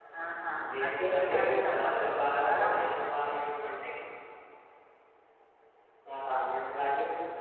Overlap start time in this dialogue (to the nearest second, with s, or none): 1 s